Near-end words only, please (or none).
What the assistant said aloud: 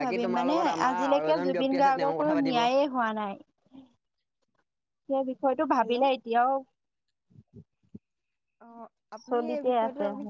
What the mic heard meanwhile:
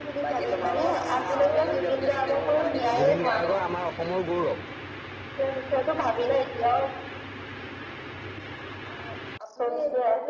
জুবিন গাৰ্গৰ আমাৰ অসমৰ গৌৰৱ।